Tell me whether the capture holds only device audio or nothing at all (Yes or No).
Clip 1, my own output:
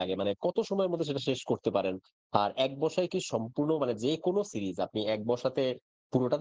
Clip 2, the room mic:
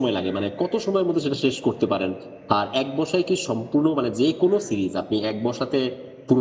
Yes